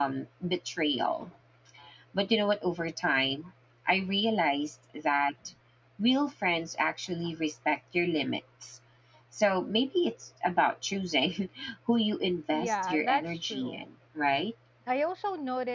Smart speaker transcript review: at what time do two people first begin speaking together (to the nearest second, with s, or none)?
13 s